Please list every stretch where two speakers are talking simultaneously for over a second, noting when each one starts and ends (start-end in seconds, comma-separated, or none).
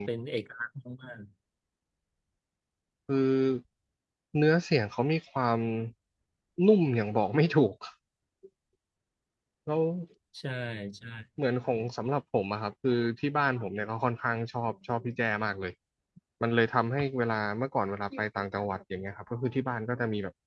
none